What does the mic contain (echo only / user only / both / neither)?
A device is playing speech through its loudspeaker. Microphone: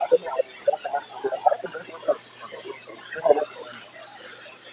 echo only